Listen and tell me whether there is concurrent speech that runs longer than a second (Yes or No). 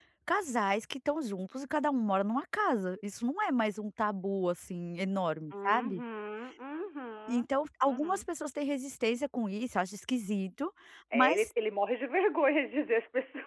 No